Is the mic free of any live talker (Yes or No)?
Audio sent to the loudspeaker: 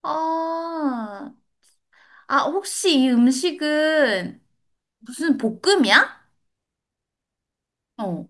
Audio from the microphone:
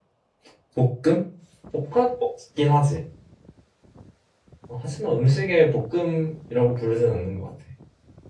No